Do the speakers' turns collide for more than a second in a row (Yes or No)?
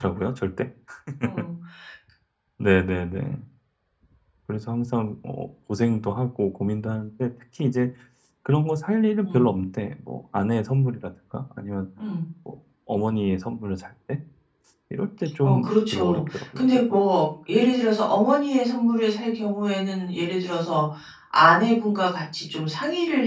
Yes